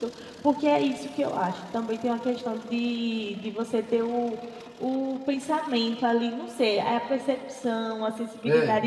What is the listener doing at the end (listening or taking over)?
listening